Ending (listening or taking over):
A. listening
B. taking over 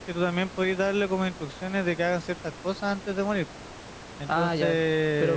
B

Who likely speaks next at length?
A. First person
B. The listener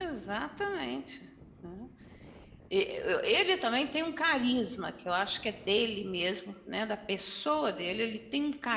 A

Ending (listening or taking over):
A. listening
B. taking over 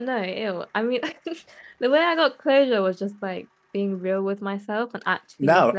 B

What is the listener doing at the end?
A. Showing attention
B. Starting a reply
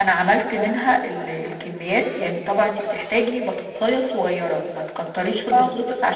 A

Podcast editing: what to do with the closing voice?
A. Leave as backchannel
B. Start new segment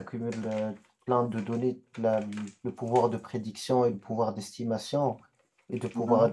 A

